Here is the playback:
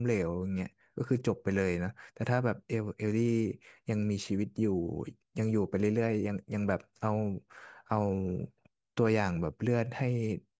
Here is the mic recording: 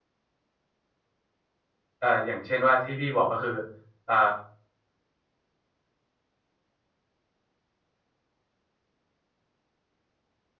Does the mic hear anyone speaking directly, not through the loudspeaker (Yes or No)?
Yes